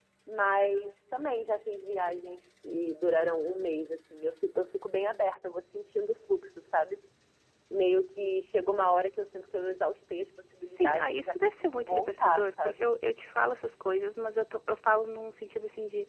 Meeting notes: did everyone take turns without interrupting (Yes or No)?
No